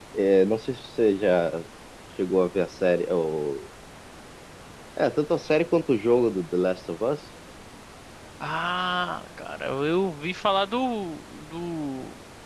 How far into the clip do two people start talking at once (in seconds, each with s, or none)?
none